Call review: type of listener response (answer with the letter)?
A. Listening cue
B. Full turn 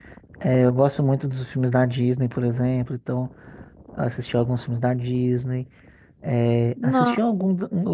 A